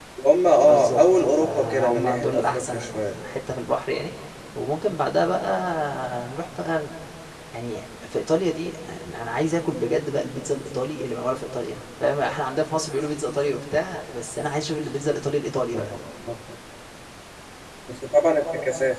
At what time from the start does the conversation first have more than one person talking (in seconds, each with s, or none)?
0.6 s